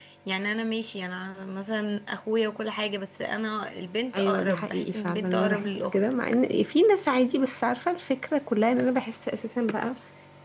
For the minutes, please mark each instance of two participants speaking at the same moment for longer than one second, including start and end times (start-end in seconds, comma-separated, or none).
4.1-6.0